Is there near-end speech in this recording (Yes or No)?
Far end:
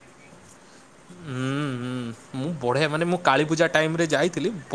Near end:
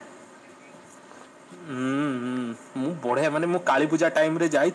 No